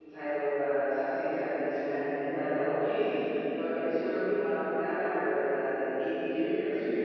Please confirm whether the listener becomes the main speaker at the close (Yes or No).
No